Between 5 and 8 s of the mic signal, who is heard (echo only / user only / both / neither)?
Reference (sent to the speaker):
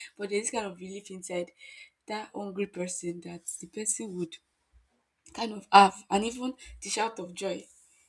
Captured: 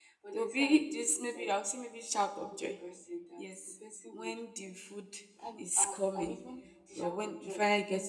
both